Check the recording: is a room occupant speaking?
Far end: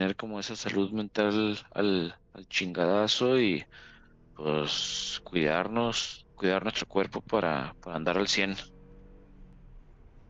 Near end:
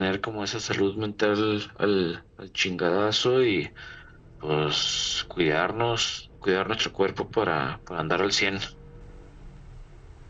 No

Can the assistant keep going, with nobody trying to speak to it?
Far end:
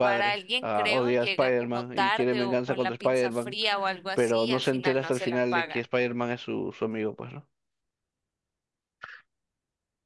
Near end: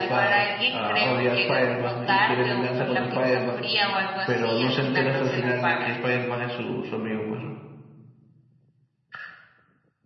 Yes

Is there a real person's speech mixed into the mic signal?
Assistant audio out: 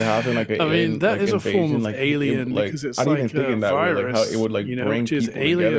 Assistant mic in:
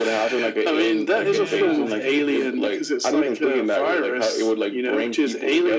Yes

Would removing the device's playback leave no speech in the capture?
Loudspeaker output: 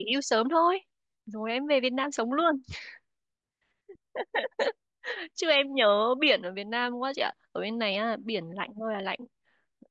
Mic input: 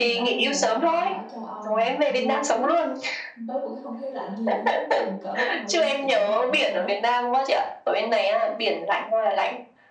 No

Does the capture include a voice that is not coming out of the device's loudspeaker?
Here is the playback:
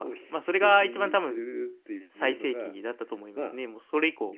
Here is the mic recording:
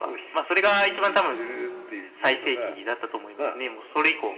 No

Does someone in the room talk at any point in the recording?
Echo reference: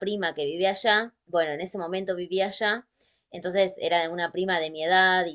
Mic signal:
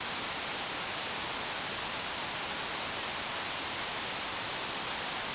No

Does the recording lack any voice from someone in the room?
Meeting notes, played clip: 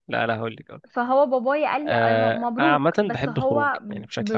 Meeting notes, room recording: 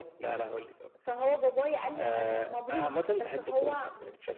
Yes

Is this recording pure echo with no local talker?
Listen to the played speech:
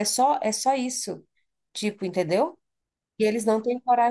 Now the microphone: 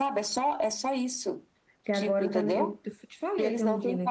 No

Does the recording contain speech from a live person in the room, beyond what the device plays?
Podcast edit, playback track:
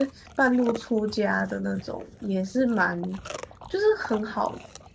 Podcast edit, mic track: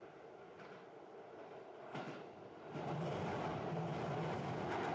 No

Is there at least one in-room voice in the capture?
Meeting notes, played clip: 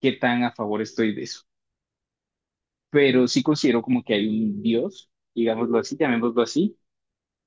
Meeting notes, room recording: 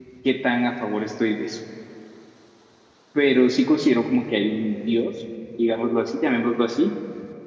No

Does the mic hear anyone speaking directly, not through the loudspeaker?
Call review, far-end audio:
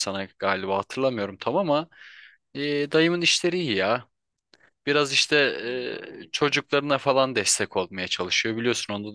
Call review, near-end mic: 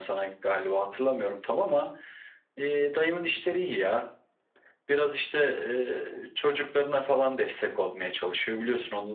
No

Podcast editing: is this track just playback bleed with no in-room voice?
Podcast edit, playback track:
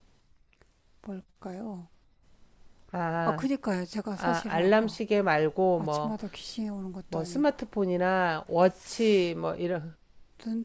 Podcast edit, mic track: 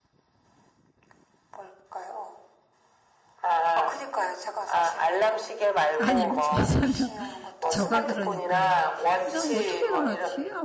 No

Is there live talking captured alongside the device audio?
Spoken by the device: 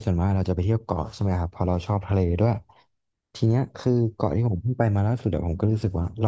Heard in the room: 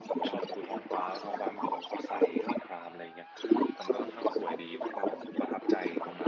Yes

